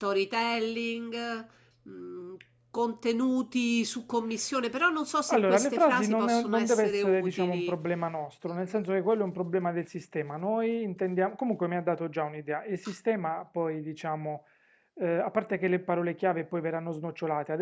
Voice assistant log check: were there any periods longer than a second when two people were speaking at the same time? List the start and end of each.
5.3-7.8

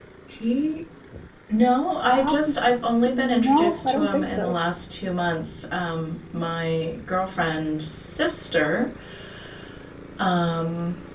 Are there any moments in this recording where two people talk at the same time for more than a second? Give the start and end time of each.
3.1-4.6

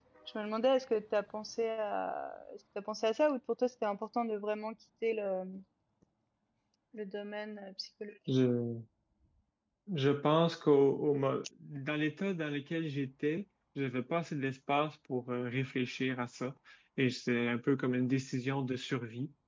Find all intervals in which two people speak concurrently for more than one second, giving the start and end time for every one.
none

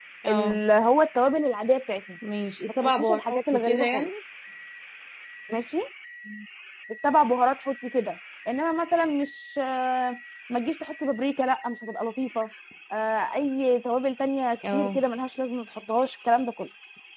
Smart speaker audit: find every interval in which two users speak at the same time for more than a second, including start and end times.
2.8-4.1

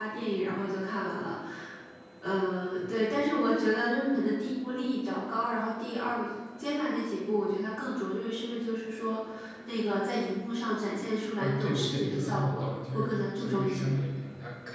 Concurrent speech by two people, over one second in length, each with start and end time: 11.4-14.0

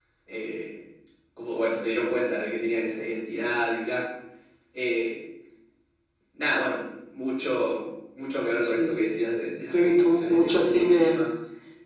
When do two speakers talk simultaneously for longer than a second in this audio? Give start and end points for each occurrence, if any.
9.7-11.2

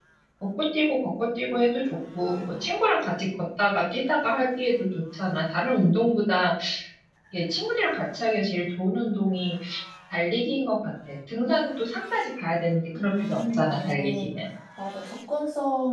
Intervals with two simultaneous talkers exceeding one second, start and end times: 13.0-14.3

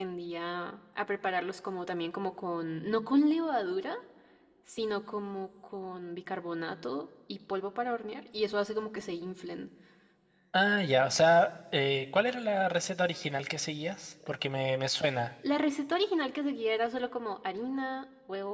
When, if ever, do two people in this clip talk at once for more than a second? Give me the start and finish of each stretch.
none

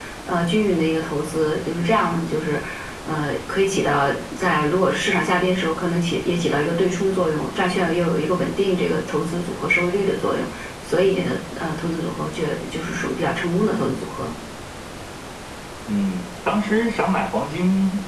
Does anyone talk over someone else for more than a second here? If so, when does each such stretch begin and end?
none

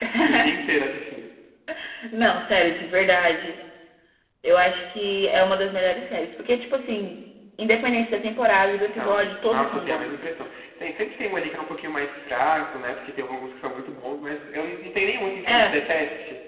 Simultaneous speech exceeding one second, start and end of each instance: 8.7-10.2

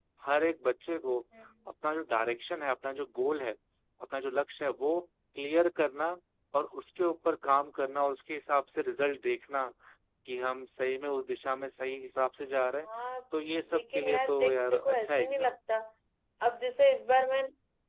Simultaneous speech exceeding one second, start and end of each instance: 13.7-15.6

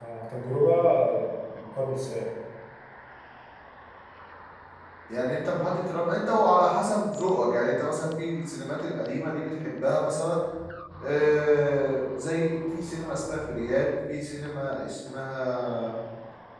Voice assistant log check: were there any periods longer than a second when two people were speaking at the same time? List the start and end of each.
none

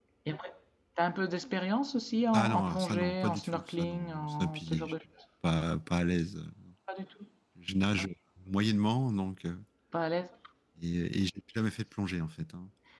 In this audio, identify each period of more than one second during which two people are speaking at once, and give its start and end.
2.3-4.9

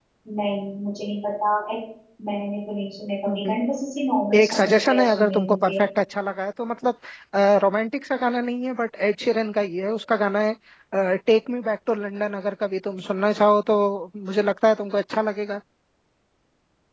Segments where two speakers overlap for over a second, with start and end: 4.3-5.7

